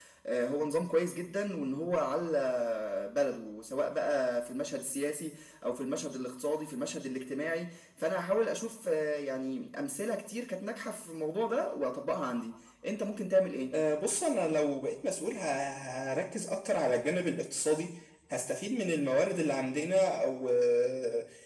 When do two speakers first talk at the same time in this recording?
none

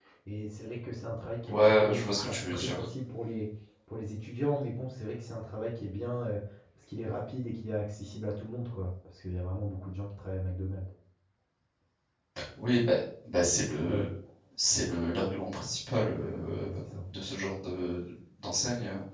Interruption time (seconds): 1.5 s

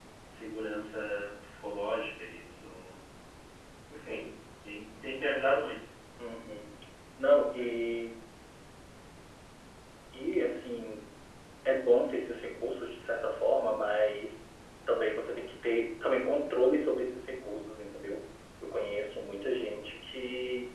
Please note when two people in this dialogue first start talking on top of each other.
none

